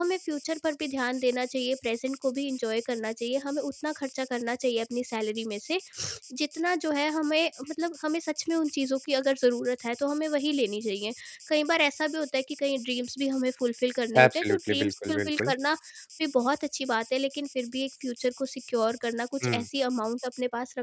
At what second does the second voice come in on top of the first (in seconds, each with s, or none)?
14.1 s